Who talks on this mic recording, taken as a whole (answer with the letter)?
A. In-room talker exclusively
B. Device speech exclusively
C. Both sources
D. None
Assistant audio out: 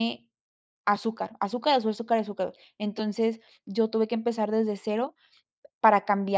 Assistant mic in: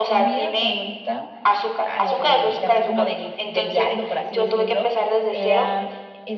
C